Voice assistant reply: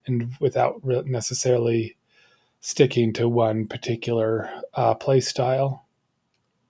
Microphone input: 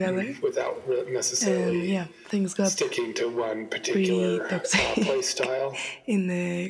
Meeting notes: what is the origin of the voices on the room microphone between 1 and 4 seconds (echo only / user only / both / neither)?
both